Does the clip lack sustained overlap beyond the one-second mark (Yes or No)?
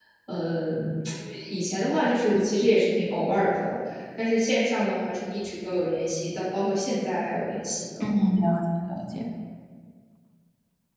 Yes